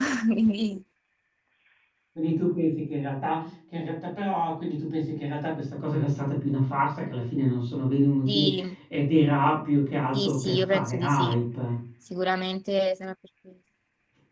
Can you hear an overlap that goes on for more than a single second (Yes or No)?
Yes